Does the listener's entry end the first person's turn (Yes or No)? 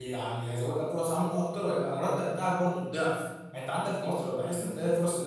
No